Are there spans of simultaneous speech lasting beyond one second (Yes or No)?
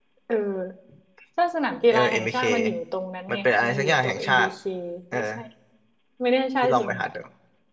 Yes